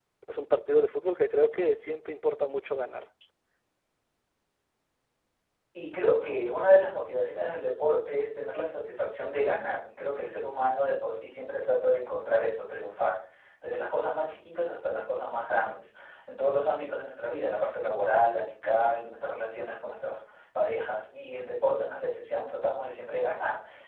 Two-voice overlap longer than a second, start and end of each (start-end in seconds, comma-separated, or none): none